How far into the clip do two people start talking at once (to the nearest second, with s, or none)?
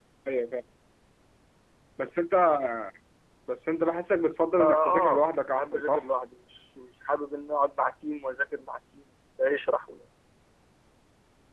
5 s